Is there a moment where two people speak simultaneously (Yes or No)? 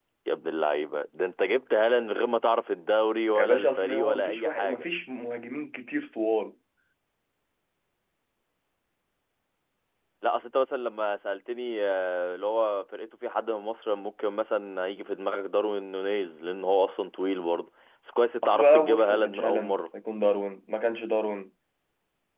Yes